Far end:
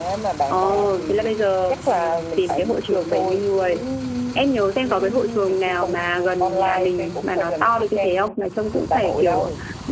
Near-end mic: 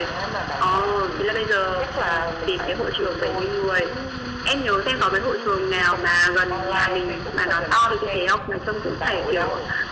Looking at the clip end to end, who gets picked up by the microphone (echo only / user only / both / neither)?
echo only